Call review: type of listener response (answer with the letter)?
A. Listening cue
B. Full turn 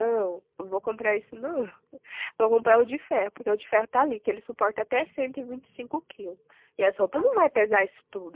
A